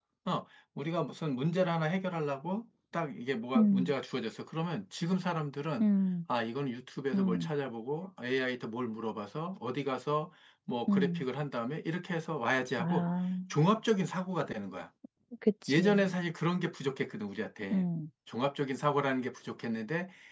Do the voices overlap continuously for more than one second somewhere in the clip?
No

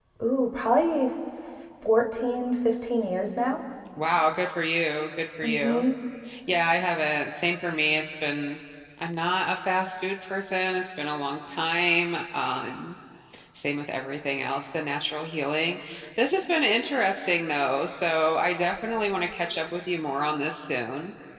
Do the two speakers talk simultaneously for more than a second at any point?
No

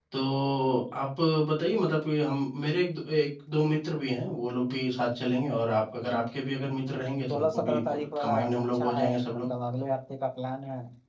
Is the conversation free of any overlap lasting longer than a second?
No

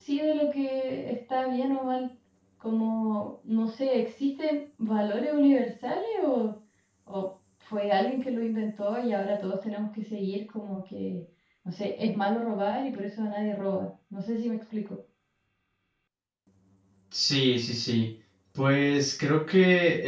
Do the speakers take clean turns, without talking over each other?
Yes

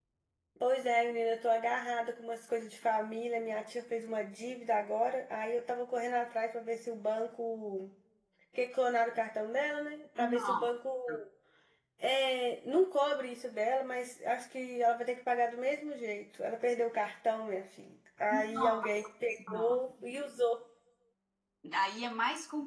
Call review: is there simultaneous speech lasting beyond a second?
Yes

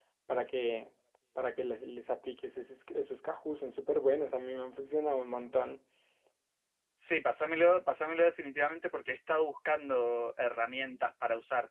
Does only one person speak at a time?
Yes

